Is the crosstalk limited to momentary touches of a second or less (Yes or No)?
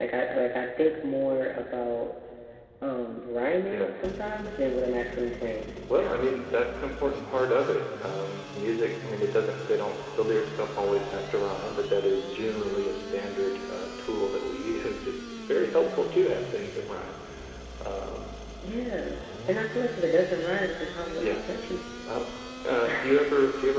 Yes